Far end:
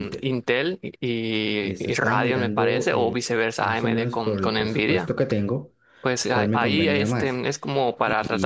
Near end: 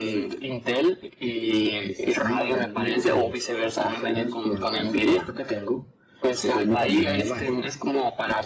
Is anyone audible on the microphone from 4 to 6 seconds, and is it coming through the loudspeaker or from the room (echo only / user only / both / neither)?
echo only